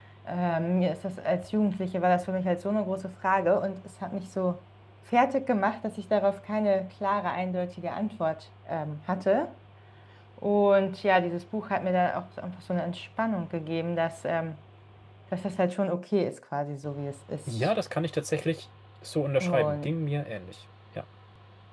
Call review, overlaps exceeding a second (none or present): none